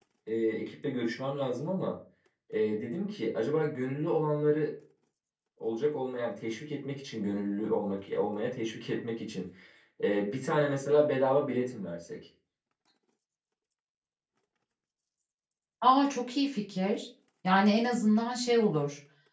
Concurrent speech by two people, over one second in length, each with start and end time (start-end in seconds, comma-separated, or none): none